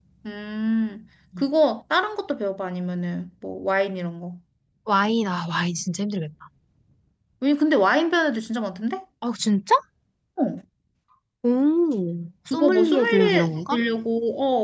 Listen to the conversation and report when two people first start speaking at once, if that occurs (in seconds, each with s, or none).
12.5 s